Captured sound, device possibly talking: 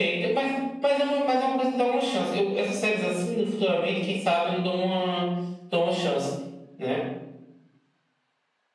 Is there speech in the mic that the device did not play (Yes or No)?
No